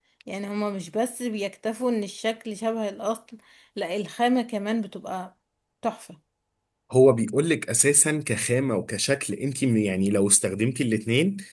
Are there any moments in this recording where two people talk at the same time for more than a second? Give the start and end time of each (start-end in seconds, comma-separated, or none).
none